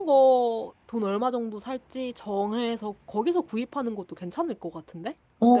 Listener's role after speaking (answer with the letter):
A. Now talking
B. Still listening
A